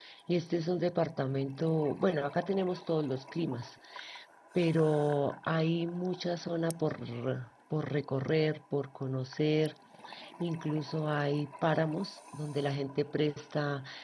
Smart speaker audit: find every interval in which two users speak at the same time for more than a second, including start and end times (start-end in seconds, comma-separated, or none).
none